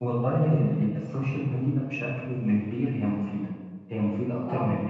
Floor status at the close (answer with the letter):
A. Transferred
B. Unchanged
B